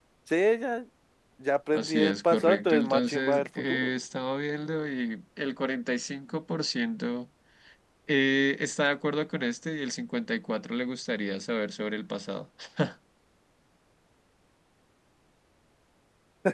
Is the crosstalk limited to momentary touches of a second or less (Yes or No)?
No